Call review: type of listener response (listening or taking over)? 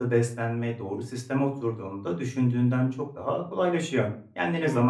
listening